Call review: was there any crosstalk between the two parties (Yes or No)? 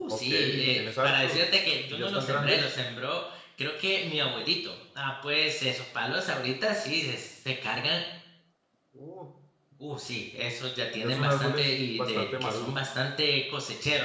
Yes